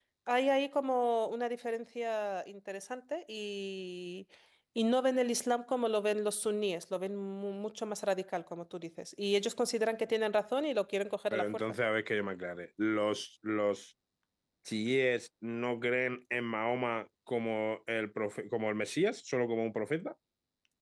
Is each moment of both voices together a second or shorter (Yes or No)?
Yes